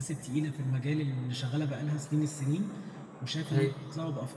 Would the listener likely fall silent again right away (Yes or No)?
Yes